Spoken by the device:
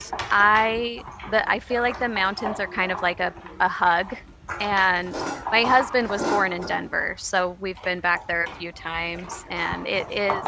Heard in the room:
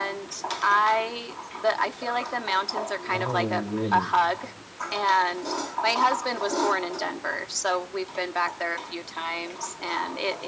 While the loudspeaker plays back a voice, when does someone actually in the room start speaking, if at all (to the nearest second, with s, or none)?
3 s